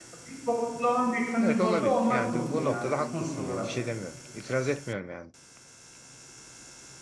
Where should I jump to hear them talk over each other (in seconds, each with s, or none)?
1.4 s